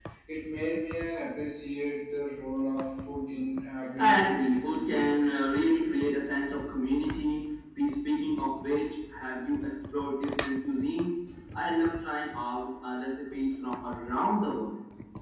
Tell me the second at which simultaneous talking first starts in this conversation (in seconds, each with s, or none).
4.0 s